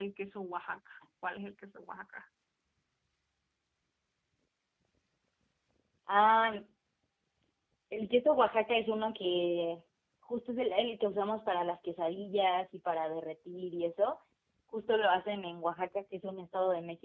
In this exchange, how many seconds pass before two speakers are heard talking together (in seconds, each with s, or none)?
none